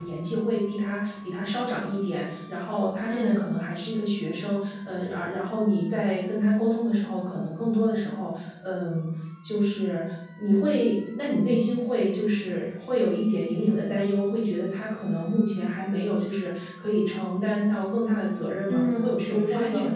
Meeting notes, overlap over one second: present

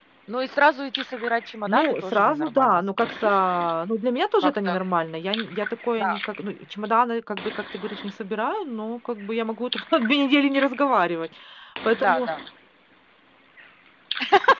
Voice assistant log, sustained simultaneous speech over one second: present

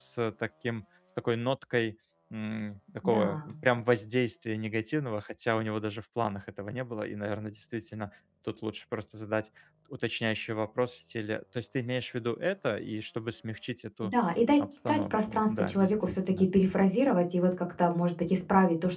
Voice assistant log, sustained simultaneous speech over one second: present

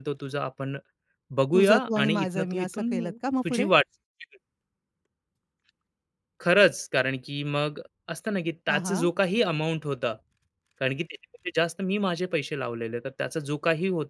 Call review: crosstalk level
present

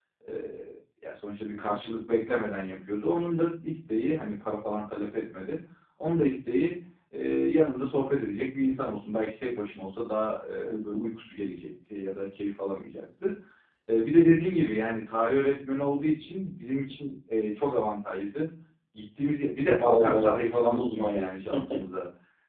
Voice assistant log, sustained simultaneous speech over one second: present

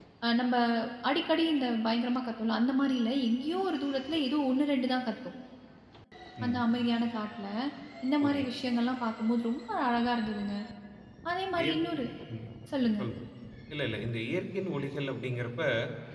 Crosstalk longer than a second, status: none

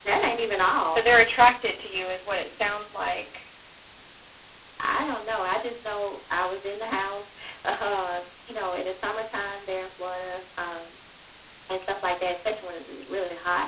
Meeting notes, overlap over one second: none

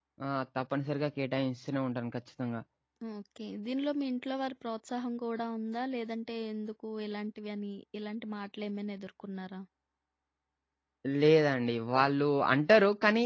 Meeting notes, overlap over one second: none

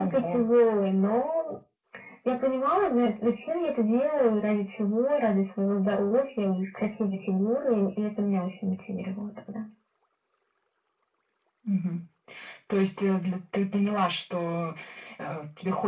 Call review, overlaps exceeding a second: none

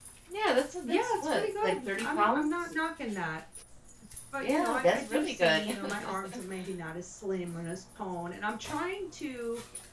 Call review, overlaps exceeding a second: present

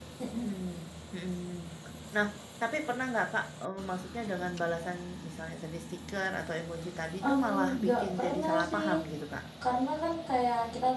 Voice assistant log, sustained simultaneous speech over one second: present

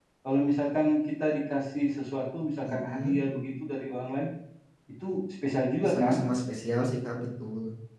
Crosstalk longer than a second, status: none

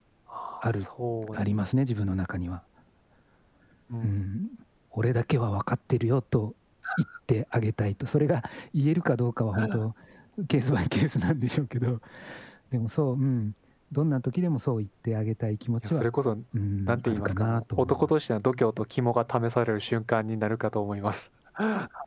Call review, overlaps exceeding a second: present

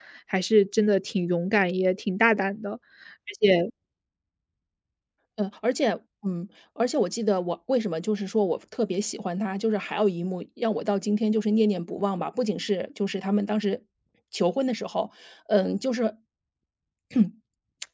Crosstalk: none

